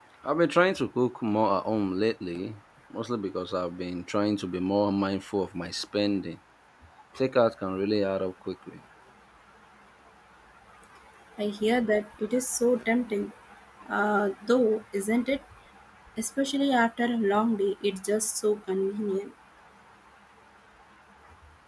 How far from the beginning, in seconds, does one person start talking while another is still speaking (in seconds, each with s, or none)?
none